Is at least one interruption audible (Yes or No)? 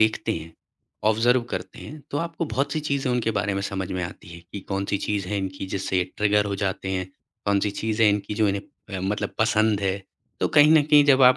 No